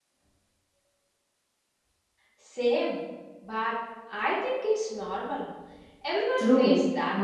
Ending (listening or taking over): taking over